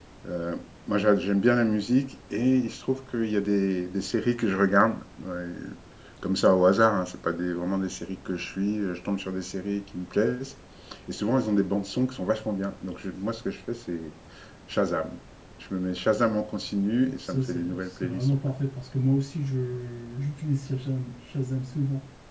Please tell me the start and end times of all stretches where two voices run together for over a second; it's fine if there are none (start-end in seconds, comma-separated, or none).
17.0-18.4